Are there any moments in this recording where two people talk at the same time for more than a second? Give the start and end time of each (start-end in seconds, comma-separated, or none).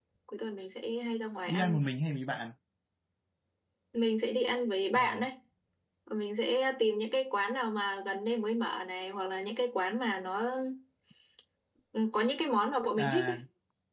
none